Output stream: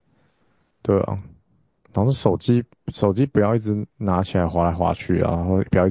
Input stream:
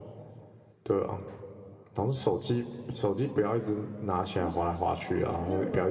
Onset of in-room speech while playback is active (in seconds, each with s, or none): 4.4 s